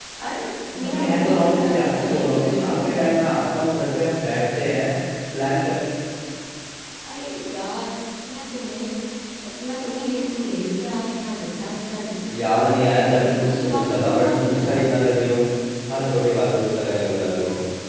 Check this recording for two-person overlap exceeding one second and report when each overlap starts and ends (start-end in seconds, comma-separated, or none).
0.8-3.1, 12.3-14.8